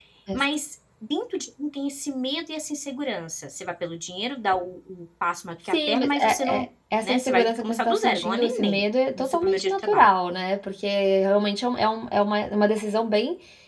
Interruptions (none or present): present